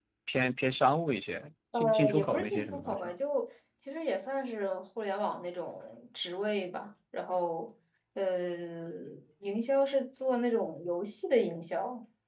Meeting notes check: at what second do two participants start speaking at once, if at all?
1.7 s

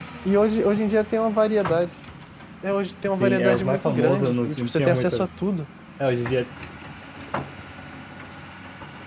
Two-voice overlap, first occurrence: 3.2 s

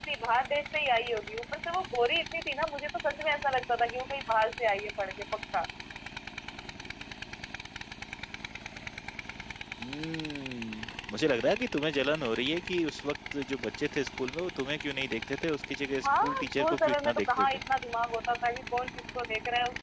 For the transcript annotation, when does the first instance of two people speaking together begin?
15.9 s

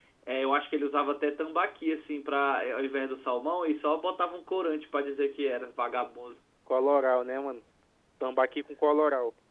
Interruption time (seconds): none

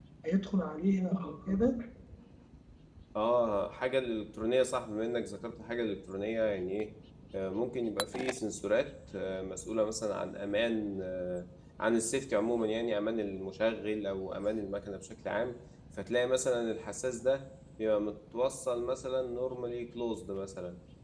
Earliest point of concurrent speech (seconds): none

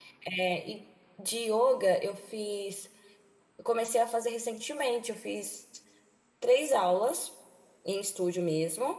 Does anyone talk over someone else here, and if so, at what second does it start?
none

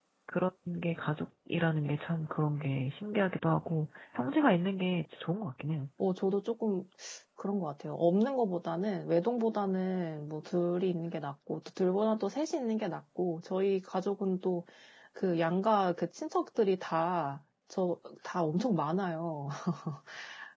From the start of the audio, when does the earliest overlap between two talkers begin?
none

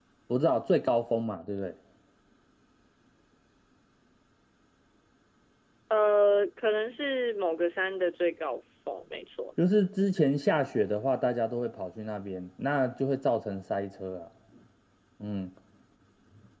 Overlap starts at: none

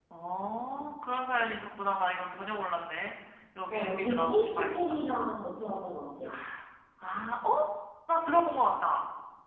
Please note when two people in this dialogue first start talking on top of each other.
3.7 s

